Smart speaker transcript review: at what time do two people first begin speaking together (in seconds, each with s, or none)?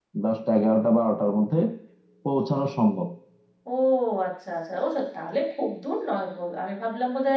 none